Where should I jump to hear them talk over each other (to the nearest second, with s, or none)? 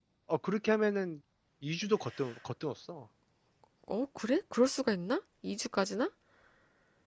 none